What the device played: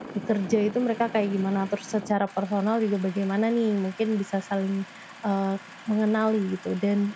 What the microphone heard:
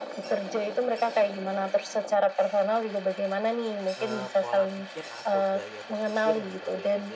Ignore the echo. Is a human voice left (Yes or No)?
Yes